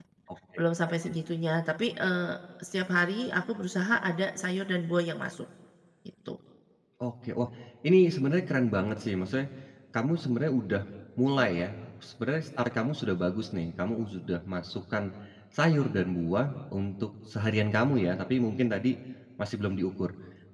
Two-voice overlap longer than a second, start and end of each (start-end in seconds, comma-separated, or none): none